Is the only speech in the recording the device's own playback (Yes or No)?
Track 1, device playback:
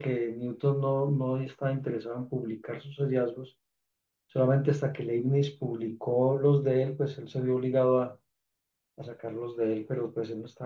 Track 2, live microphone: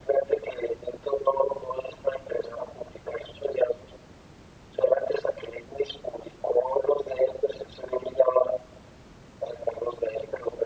Yes